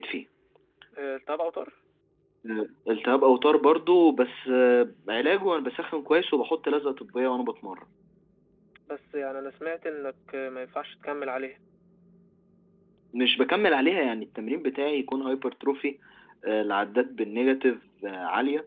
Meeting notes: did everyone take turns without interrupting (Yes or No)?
Yes